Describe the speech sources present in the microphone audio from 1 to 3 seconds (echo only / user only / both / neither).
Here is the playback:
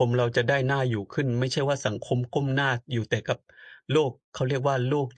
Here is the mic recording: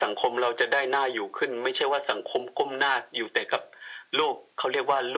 echo only